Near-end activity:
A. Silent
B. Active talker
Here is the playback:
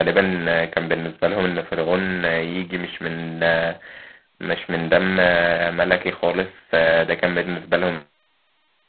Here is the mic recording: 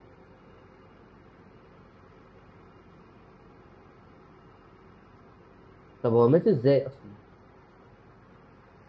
B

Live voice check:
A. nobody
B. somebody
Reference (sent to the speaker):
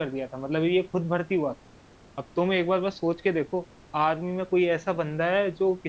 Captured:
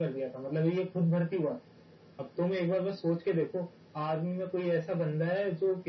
A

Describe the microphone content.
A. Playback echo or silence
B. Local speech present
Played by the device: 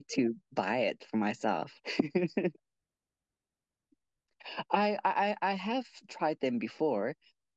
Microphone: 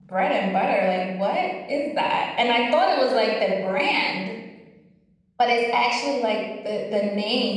B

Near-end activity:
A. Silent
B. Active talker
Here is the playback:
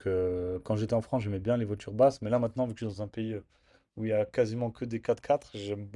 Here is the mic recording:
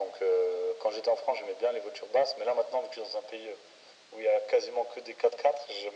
A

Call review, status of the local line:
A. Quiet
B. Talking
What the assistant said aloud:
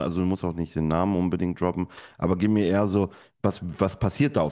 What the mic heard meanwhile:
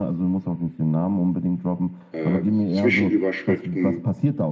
B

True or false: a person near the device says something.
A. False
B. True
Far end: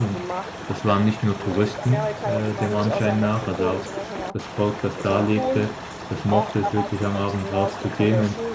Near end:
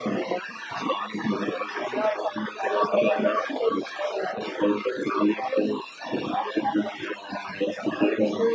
A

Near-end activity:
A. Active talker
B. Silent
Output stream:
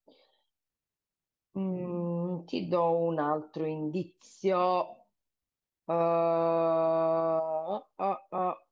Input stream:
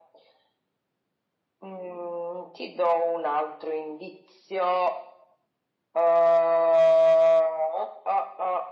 B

